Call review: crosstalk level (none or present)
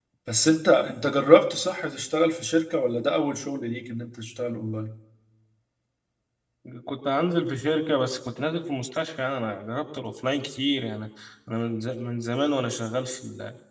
none